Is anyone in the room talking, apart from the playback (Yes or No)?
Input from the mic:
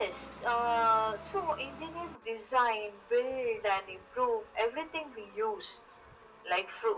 No